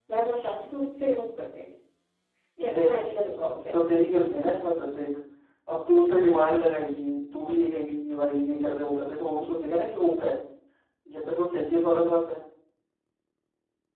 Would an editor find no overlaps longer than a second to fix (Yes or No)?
Yes